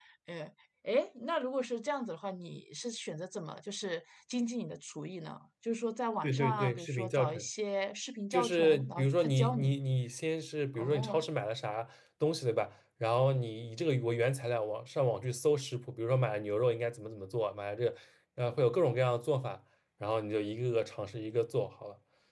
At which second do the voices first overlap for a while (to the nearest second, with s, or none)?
6 s